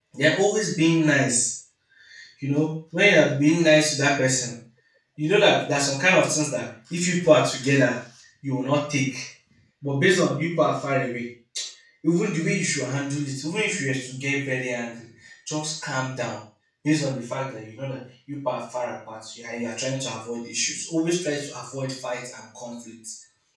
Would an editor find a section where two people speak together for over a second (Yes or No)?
No